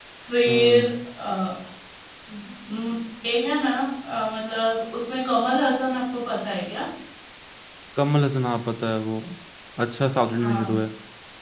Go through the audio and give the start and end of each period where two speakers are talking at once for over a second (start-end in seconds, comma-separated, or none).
none